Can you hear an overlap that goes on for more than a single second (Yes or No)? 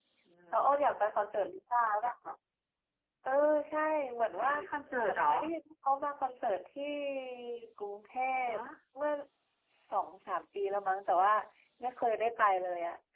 No